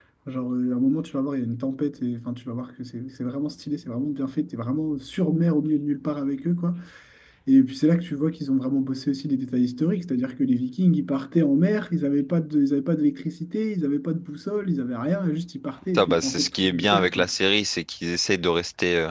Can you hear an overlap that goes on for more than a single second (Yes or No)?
Yes